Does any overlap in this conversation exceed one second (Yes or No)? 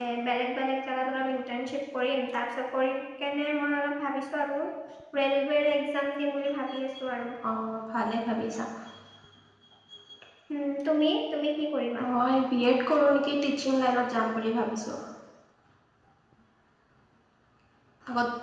No